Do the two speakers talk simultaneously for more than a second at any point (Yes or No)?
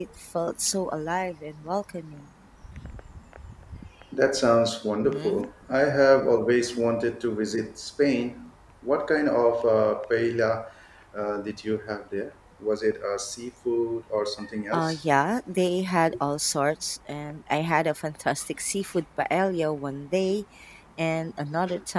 No